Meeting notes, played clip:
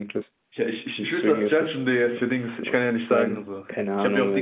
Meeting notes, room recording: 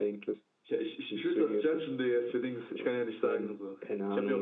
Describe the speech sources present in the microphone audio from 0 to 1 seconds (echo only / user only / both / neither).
echo only